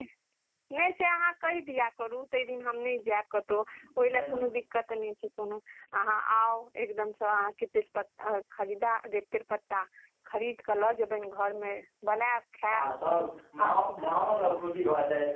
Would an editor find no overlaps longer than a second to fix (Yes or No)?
Yes